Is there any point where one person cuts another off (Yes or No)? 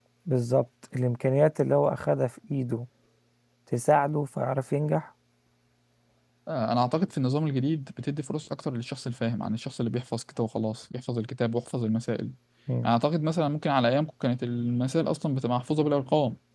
No